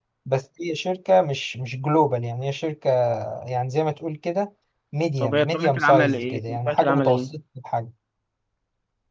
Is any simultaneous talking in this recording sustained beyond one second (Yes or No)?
Yes